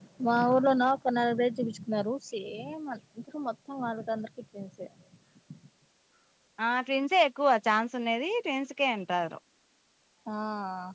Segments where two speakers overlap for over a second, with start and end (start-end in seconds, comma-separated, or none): none